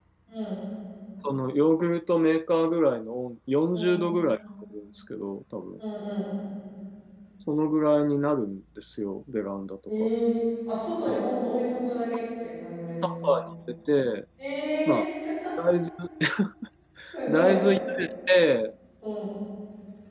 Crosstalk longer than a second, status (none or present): none